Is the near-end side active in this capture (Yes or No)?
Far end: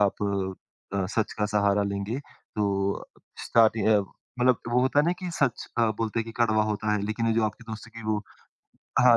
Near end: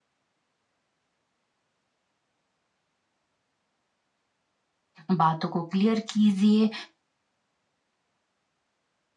Yes